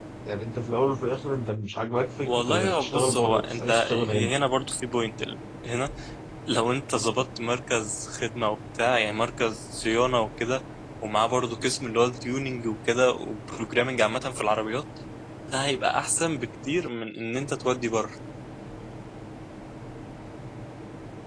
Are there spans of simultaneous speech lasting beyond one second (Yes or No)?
Yes